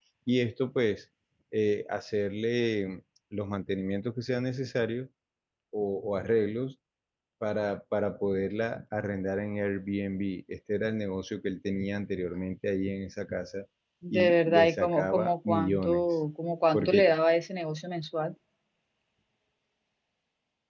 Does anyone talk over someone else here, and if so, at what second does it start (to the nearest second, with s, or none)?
14 s